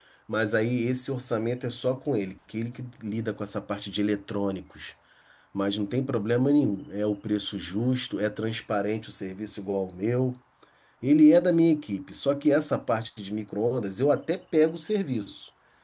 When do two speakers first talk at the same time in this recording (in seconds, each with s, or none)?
none